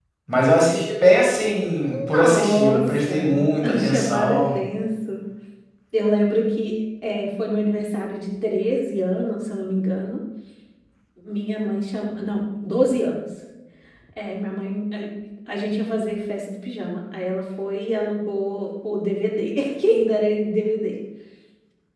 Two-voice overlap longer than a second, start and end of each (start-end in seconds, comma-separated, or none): 1.9-4.6